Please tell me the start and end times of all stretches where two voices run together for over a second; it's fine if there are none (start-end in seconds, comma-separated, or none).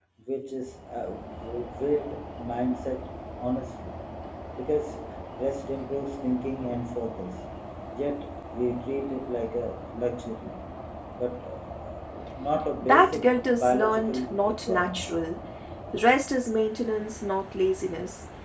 12.8-15.2